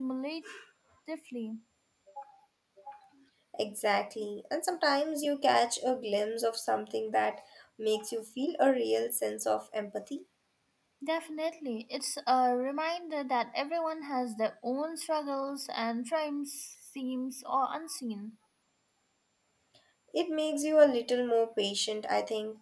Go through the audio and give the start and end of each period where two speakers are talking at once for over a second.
none

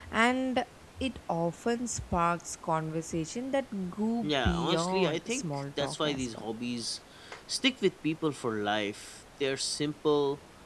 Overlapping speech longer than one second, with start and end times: 4.2-6.4

